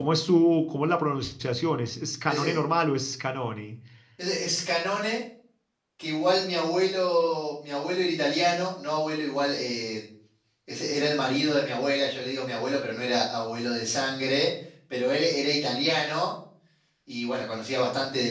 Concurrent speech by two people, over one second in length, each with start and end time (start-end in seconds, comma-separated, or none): none